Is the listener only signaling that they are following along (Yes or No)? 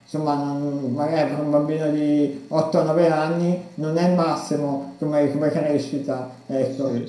No